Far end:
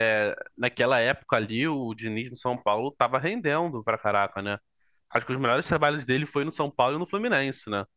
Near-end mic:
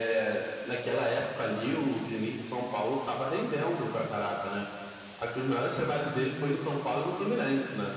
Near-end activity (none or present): none